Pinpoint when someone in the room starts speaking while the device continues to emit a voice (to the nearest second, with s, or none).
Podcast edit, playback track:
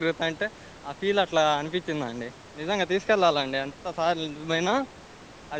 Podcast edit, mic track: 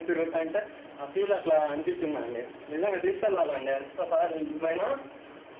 none